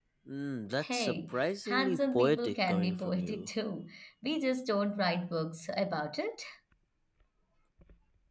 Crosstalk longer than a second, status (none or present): present